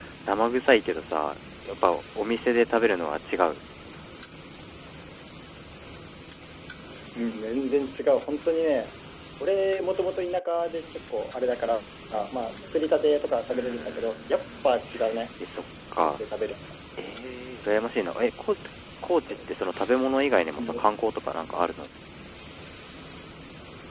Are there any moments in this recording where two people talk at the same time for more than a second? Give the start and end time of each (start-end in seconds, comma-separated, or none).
13.5-14.7